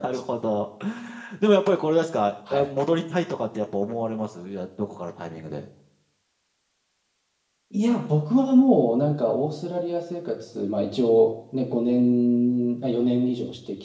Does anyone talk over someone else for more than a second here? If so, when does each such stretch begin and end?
none

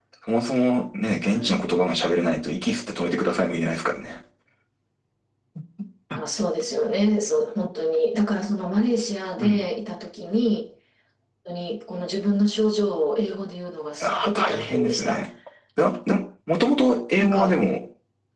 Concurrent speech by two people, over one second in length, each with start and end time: 14.0-15.2

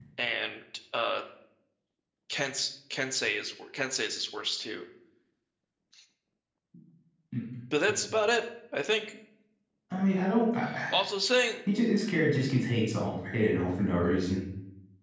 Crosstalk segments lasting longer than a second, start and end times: none

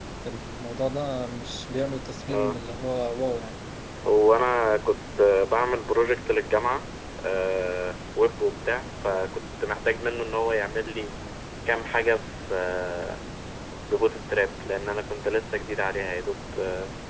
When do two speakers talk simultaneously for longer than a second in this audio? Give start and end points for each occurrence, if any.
none

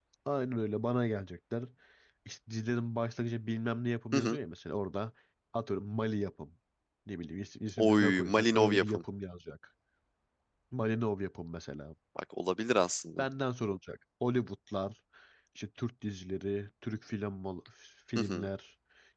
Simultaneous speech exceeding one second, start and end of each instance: 7.8-9.0

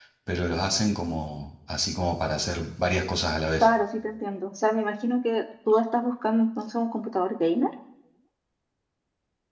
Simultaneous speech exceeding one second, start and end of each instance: none

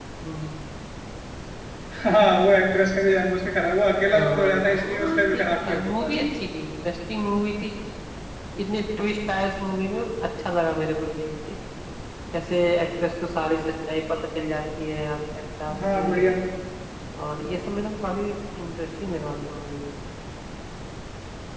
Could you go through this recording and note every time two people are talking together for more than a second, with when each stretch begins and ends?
4.1-6.1

